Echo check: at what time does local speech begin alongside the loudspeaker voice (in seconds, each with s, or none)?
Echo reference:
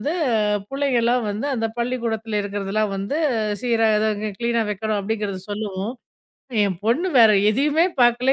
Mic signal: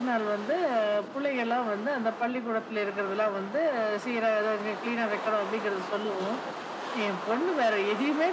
none